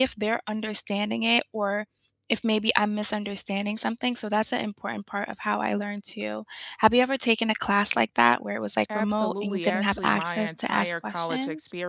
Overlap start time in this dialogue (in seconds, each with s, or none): 8.9 s